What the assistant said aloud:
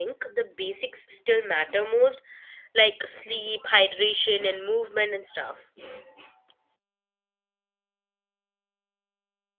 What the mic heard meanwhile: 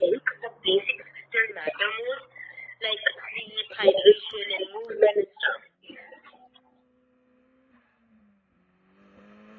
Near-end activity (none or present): none